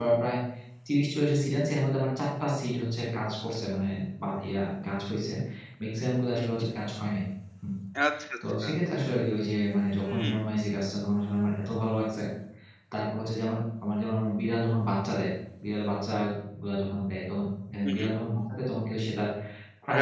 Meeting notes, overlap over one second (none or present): none